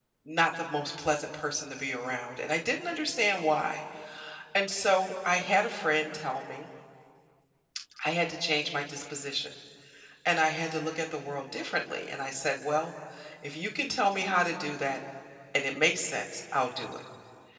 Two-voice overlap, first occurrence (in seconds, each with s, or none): none